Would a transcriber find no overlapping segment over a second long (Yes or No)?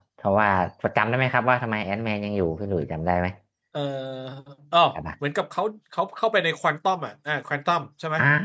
Yes